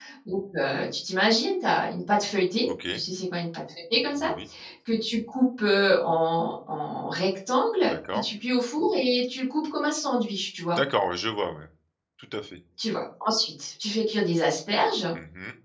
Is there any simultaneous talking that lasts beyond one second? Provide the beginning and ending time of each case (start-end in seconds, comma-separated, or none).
none